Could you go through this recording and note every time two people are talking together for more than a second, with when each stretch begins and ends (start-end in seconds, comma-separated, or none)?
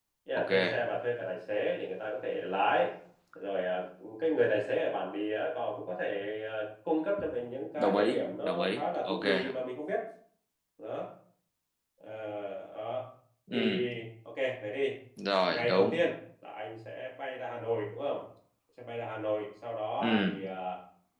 7.8-9.2